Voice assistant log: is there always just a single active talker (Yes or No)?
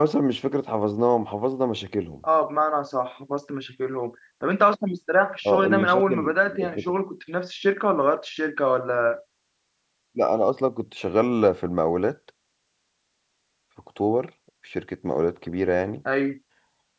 No